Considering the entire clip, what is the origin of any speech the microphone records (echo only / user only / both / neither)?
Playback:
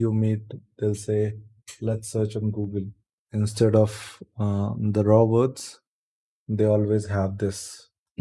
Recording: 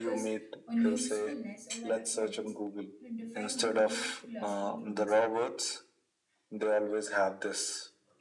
both